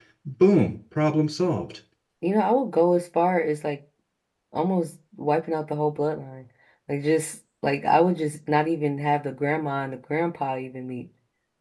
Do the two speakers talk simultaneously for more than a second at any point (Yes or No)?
No